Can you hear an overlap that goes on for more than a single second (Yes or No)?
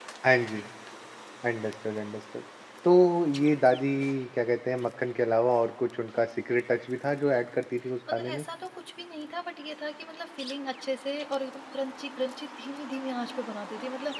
No